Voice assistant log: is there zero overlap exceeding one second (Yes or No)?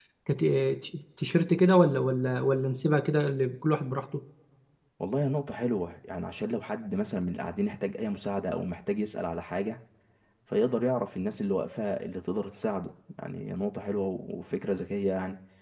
Yes